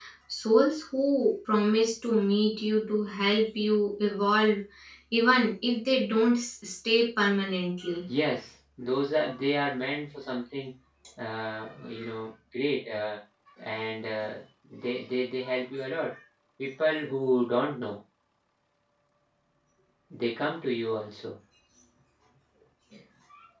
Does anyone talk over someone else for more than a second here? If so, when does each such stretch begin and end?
none

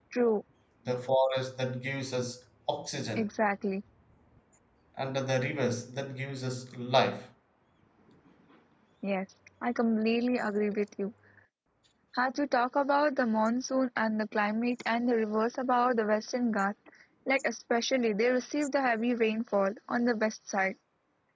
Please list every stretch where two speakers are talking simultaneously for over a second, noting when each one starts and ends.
none

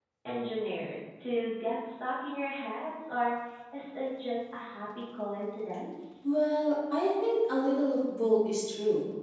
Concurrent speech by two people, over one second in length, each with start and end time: none

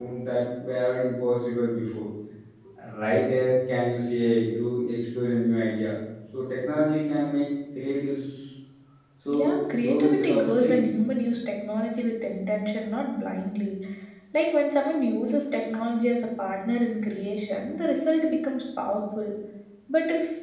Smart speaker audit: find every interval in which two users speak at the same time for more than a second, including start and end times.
9.3-10.8

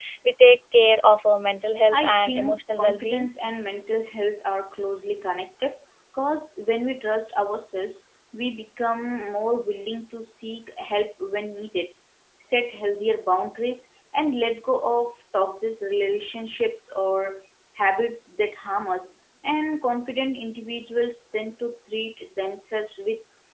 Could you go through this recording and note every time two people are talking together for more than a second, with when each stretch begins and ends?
1.9-3.3

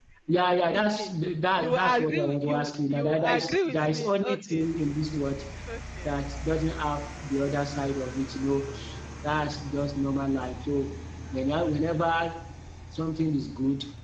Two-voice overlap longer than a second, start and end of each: 1.6-4.7

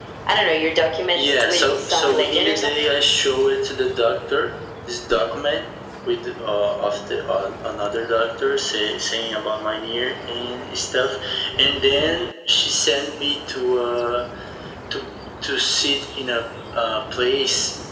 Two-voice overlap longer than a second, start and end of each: 1.1-2.9

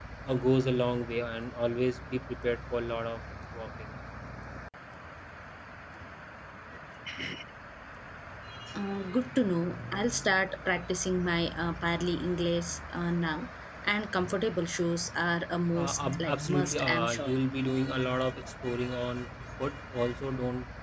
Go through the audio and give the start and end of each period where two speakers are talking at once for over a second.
15.7-17.3

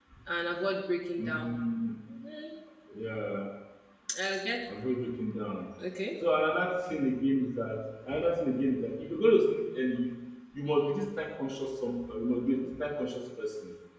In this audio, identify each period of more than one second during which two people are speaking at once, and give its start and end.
none

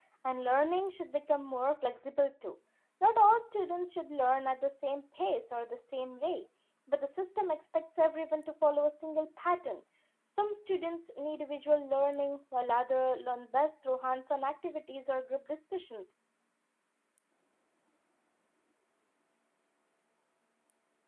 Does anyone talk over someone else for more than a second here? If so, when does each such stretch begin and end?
none

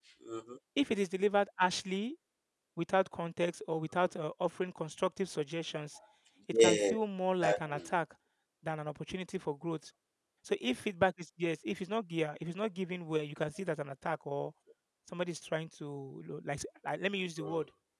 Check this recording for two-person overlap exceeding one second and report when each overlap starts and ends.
none

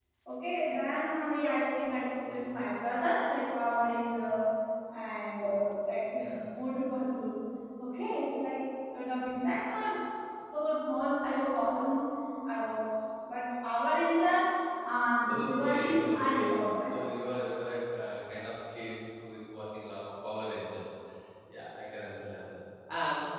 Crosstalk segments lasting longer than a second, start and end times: 15.2-16.9

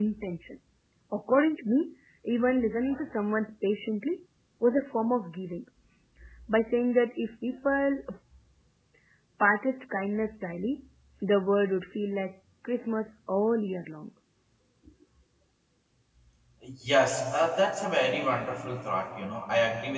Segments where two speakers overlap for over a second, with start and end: none

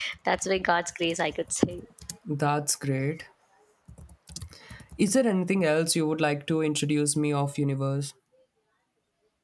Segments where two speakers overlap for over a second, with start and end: none

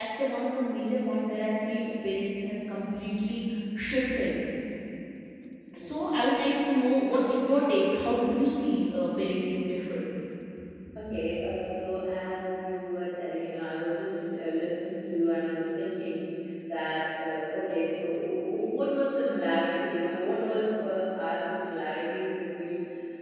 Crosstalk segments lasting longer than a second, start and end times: none

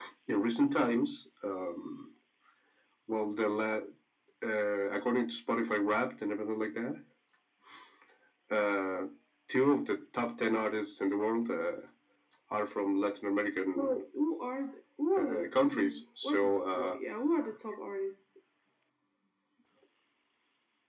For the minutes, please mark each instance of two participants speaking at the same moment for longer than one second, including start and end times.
15.2-17.0

